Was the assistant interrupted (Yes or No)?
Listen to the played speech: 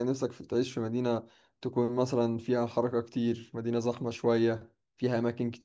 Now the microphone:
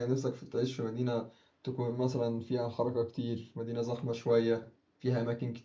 No